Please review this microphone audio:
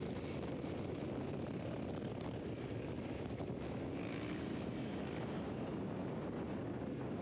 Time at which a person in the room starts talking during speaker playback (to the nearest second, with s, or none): none